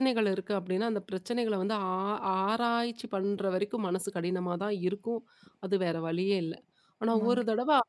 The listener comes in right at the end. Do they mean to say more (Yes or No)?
No